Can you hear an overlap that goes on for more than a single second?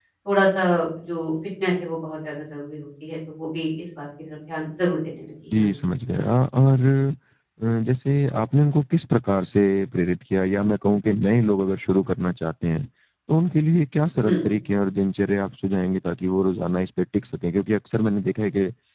No

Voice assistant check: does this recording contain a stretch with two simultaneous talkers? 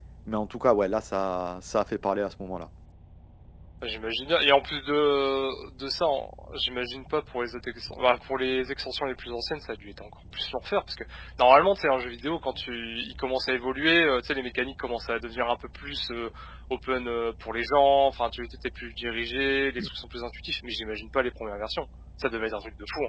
No

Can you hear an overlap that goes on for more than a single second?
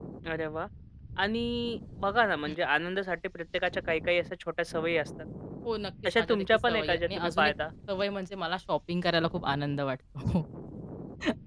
Yes, from 6.2 s

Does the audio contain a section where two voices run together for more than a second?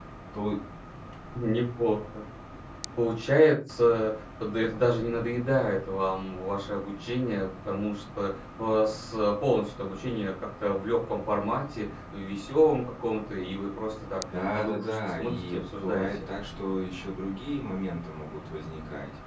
Yes, from 14.3 s

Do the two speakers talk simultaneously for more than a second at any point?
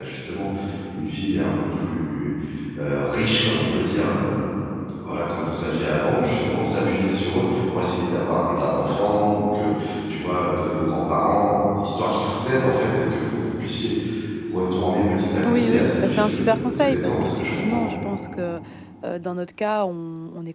Yes, from 15.4 s

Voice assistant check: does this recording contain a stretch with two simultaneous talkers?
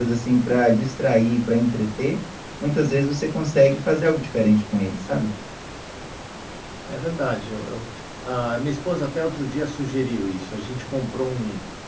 No

